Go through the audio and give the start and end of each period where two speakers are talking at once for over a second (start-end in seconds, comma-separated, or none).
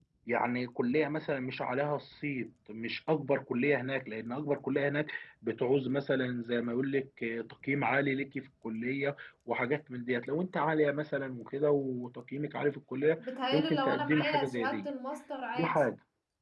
13.2-14.9